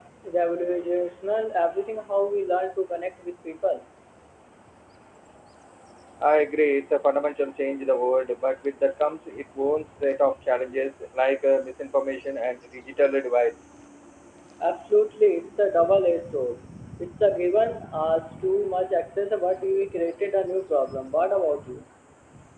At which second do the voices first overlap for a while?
none

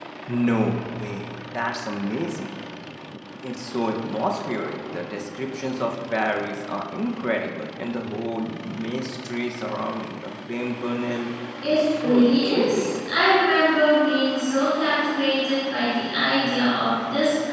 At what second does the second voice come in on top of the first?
11.7 s

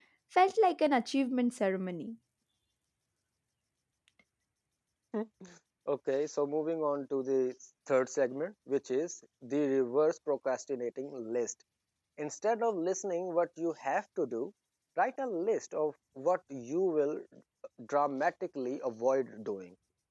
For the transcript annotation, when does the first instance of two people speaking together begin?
none

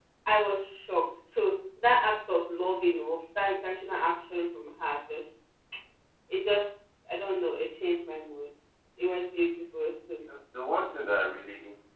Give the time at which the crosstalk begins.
none

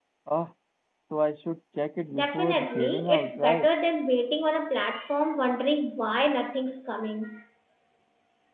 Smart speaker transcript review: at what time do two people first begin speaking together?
2.2 s

